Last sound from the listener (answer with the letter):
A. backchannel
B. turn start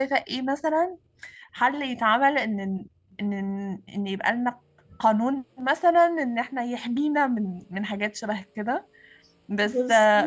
A